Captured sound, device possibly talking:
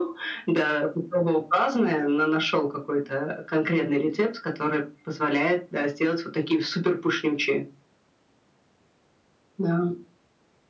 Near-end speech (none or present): none